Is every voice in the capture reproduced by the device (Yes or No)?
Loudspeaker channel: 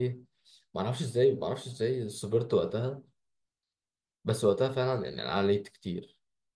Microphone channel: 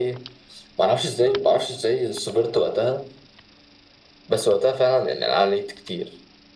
Yes